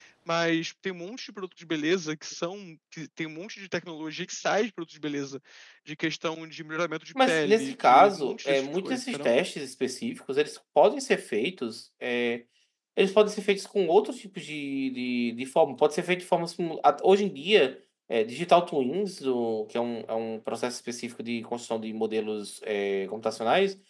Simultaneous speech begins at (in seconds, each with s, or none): 7.2 s